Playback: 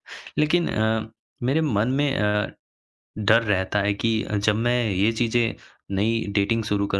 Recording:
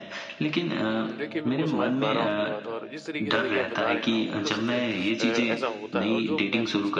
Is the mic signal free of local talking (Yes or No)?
No